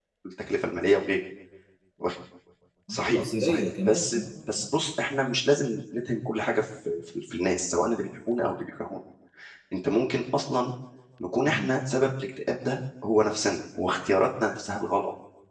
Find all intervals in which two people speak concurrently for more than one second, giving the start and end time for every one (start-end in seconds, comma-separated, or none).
3.1-4.7